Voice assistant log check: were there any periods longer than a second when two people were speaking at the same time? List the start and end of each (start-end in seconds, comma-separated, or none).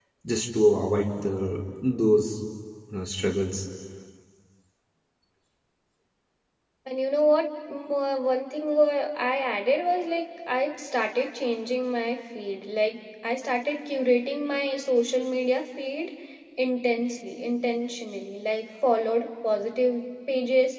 none